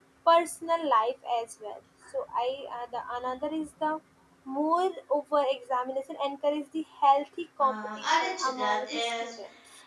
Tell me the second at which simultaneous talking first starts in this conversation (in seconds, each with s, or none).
7.6 s